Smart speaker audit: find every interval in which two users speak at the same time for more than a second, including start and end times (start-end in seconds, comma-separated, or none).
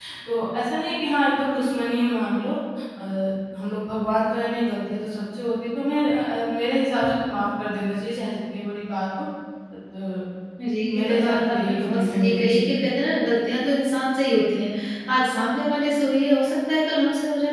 11.0-12.6